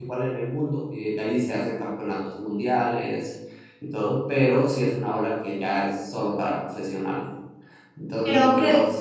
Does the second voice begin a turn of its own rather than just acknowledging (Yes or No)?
No